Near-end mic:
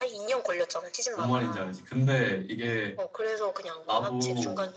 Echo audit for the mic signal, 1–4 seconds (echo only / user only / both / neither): both